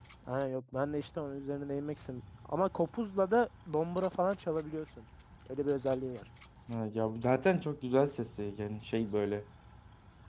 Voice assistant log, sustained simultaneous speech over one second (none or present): none